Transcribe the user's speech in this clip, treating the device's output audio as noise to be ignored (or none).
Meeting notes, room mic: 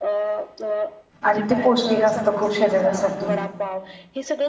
आणि ते पौष्टिक असतं खूप शरीरासाठी